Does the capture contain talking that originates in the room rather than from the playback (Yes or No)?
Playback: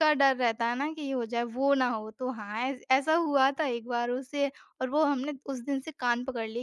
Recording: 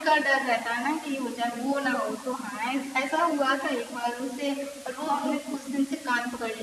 No